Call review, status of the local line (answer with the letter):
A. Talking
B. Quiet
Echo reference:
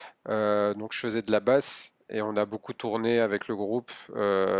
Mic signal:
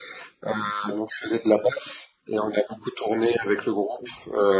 B